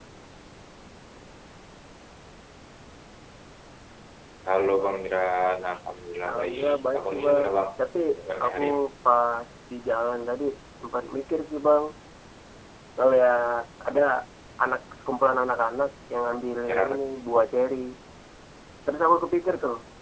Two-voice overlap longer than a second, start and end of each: 6.3-7.6

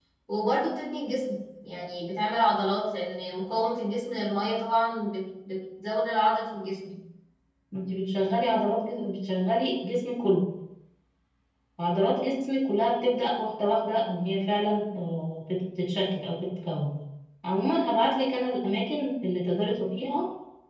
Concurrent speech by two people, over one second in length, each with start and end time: none

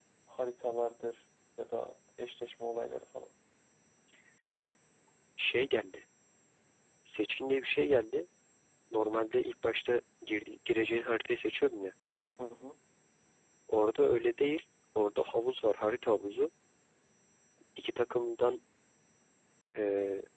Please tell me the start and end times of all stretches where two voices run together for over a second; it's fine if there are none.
none

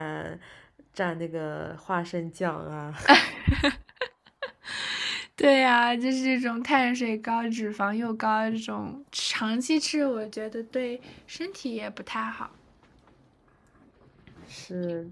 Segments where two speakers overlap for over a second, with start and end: none

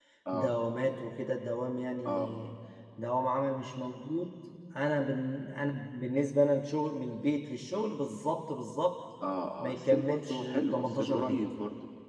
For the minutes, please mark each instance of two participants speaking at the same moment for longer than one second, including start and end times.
9.6-11.5

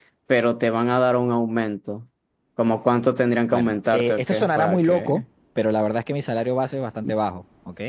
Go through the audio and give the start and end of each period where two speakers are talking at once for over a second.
3.5-5.2

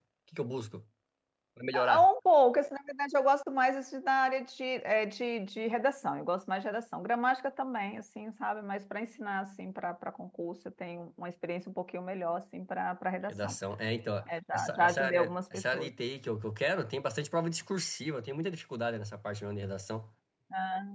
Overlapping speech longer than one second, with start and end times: 14.5-15.9

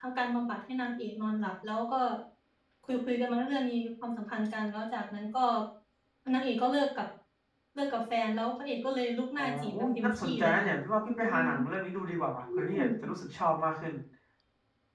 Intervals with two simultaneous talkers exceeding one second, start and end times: 9.4-10.7

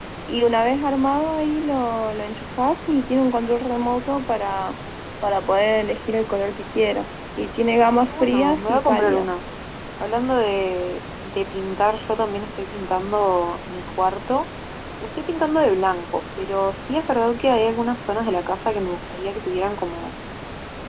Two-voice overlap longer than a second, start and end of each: 7.9-9.3

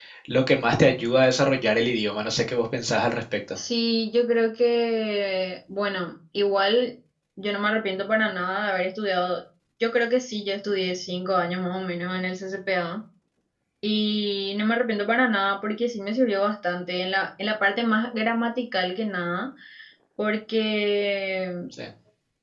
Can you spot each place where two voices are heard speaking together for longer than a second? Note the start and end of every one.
none

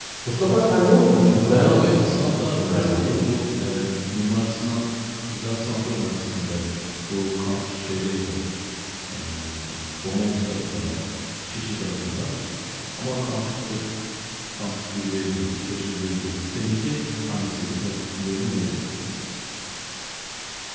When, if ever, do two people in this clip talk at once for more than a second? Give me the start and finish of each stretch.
1.4-3.2

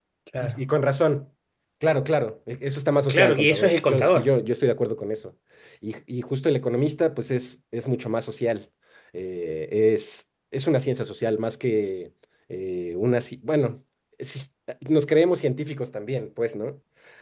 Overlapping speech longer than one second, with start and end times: 3.1-4.3

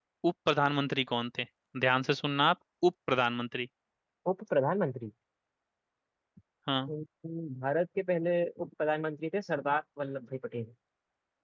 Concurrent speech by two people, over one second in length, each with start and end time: none

